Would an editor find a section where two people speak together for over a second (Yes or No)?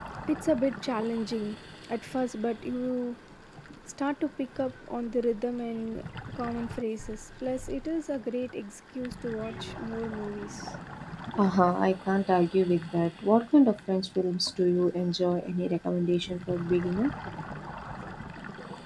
No